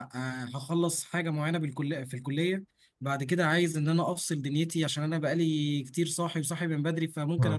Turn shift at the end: No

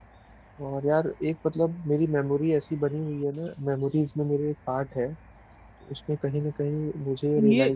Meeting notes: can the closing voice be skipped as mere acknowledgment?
No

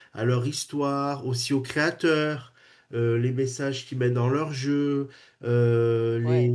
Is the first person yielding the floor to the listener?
No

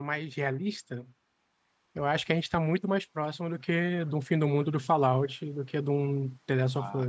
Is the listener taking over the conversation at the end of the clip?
Yes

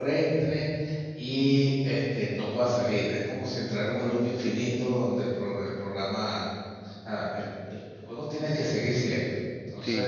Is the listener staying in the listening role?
Yes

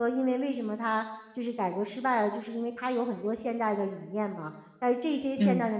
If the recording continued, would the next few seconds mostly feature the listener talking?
No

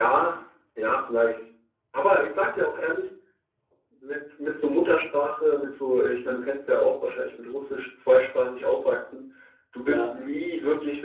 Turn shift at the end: No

